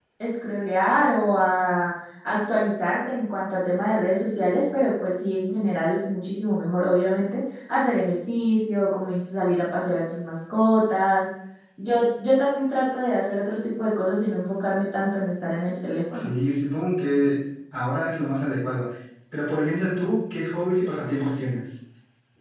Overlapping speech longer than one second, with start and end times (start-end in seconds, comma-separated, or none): none